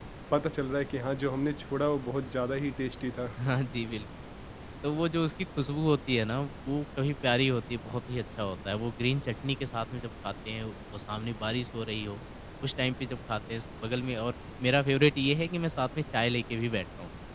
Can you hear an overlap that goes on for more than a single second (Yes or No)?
No